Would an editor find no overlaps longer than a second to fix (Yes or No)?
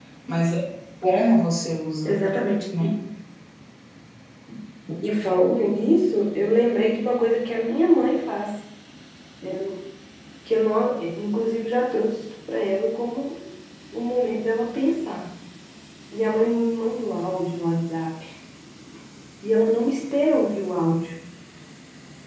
Yes